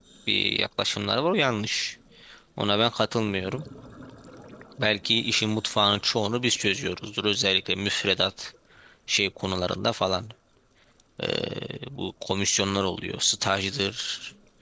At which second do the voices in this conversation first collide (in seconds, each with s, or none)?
none